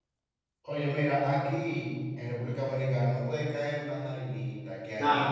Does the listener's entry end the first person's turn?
No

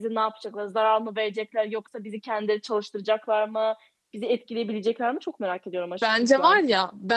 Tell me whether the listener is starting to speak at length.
Yes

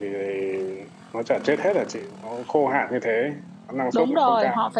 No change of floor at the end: No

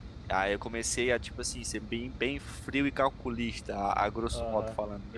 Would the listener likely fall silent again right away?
No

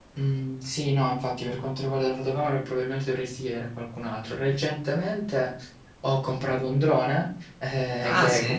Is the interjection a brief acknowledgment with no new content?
Yes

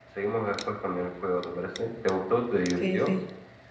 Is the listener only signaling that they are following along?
No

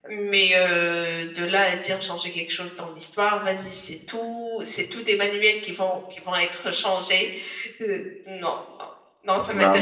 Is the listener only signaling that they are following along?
No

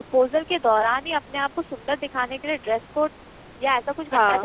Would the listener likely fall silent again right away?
Yes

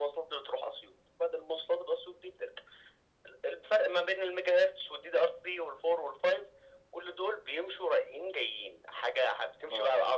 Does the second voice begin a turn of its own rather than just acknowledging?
No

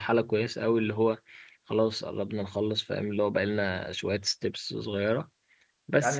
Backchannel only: No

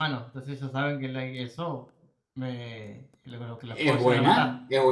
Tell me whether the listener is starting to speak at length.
Yes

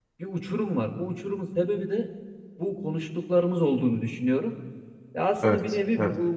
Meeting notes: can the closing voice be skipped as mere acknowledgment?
Yes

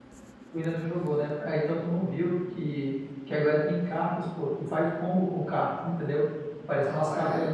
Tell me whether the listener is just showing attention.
Yes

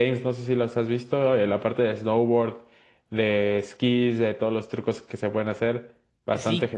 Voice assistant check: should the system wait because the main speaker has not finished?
No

